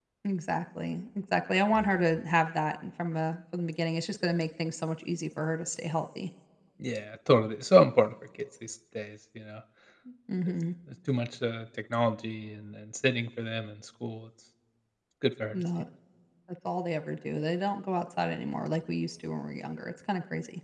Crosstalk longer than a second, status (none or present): none